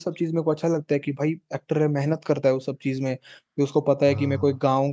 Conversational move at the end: listening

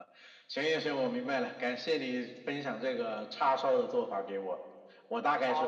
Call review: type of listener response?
listening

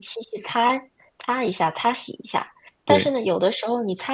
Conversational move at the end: listening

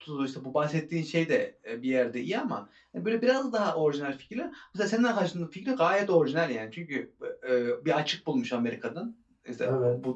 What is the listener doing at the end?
listening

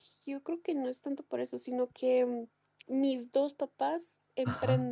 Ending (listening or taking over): taking over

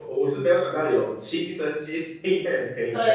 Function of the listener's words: taking over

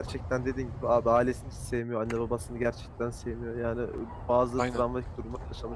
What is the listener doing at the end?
listening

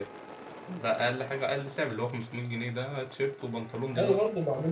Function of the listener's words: taking over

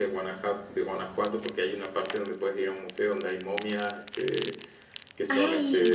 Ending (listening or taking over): listening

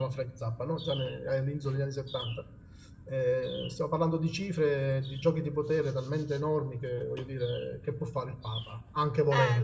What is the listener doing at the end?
taking over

